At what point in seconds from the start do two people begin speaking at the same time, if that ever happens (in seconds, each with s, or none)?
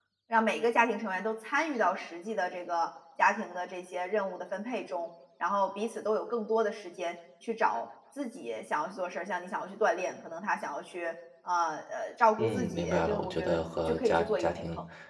12.4 s